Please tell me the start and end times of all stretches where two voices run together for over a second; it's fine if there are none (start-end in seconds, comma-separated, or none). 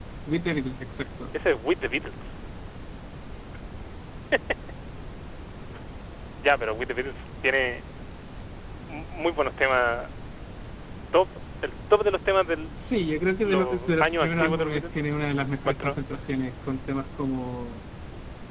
13.4-14.8